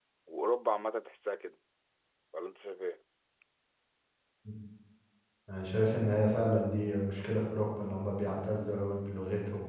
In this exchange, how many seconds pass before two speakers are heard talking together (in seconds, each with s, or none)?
none